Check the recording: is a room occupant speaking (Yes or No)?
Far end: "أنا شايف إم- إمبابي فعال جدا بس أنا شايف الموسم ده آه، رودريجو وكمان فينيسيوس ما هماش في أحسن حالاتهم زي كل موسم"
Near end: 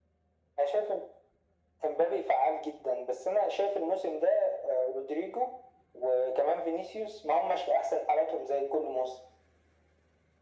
No